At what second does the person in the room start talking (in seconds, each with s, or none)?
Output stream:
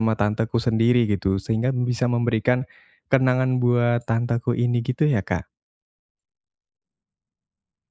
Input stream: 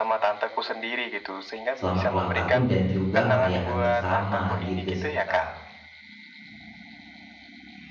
1.8 s